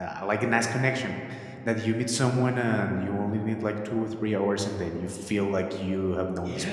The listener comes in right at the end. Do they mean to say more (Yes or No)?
Yes